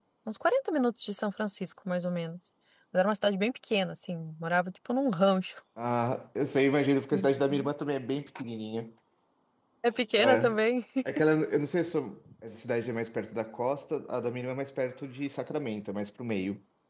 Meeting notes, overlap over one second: none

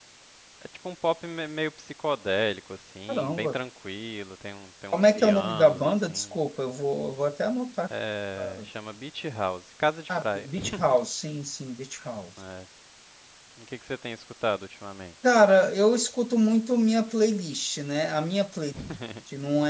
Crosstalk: present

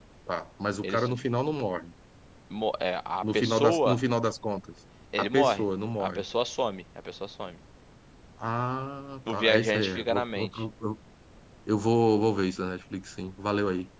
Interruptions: present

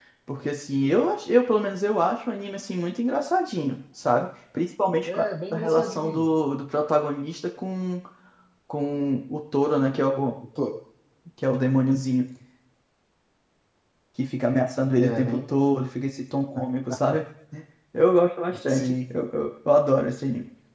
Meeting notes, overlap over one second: present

